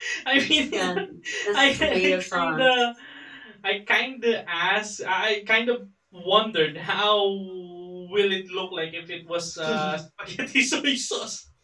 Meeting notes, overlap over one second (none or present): present